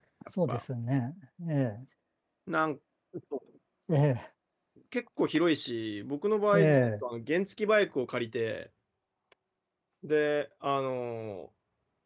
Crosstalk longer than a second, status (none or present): none